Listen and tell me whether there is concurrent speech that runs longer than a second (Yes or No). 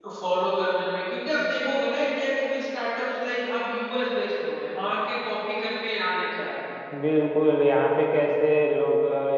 No